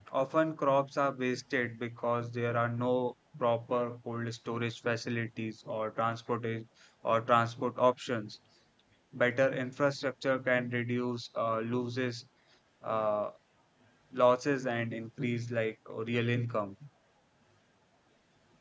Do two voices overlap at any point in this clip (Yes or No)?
No